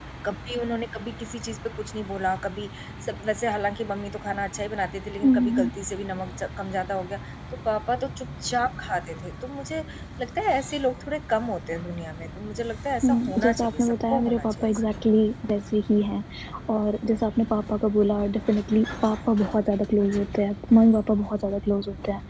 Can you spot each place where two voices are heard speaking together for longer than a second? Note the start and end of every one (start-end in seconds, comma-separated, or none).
13.0-15.2